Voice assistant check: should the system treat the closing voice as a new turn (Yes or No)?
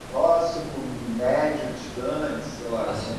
Yes